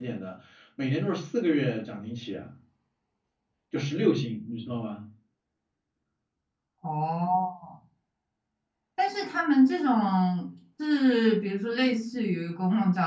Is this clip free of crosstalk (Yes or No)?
Yes